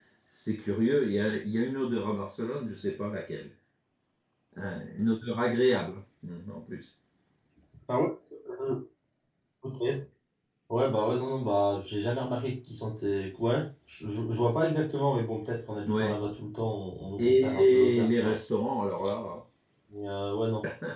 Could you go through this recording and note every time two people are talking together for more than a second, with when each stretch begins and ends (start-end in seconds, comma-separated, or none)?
17.2-18.4